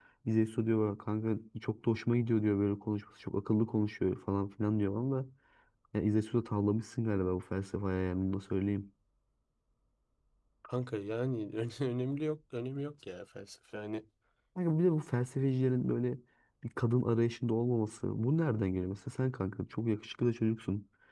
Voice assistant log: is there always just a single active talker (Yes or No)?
Yes